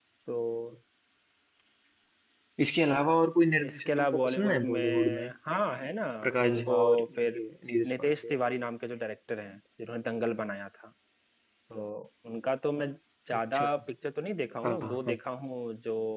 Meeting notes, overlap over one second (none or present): present